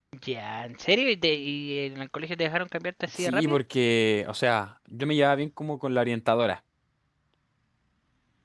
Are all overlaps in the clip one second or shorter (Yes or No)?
Yes